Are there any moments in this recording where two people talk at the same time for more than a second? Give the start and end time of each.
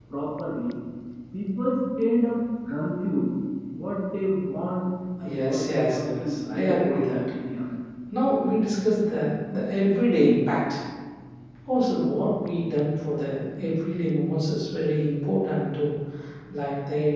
5.2-7.2

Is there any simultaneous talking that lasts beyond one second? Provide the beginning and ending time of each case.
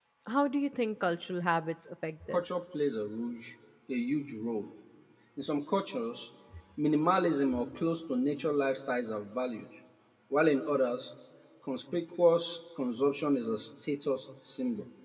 none

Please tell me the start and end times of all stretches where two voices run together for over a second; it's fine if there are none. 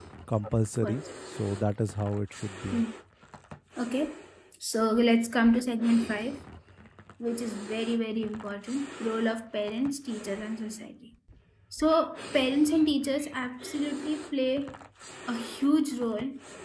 none

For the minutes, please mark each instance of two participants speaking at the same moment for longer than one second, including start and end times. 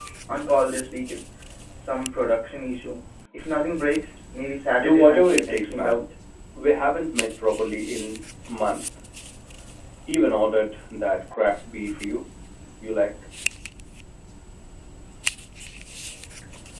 4.7-6.0

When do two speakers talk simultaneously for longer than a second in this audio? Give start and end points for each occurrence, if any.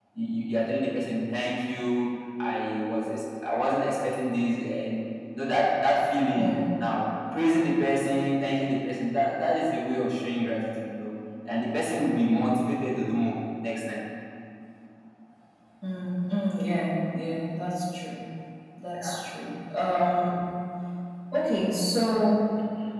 none

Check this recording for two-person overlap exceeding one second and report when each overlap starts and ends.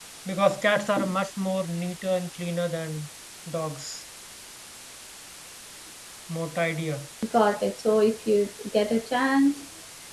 none

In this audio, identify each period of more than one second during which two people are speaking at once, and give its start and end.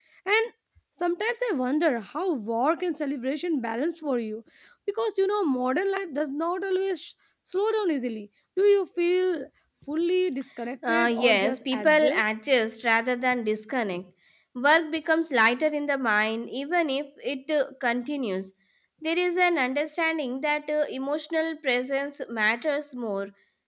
10.9-12.2

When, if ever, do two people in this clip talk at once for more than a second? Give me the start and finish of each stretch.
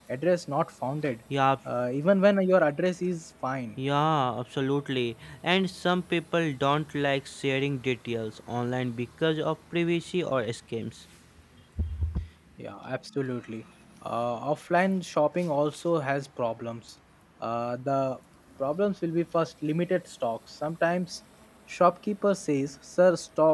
none

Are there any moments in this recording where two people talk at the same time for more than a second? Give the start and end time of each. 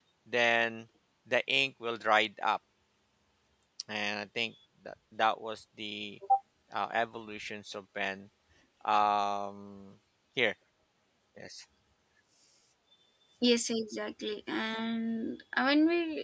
none

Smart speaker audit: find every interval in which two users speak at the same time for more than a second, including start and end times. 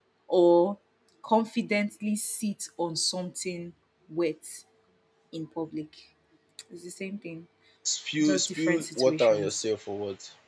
8.2-9.6

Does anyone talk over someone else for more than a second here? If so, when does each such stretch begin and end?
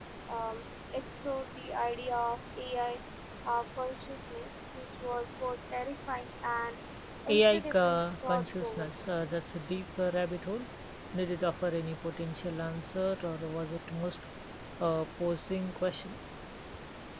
7.3-8.9

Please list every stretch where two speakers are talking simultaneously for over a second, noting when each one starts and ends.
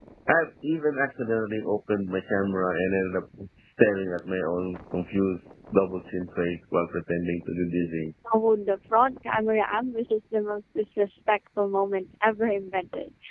none

